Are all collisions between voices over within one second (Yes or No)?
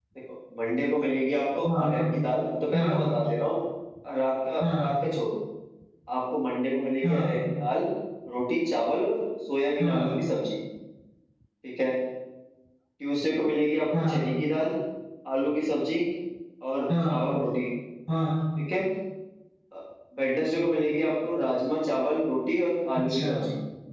Yes